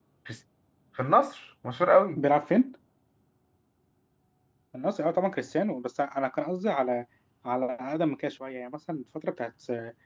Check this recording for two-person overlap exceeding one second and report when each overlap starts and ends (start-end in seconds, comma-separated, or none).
none